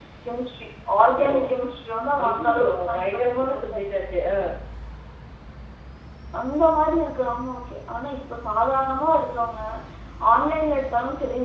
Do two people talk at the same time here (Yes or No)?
Yes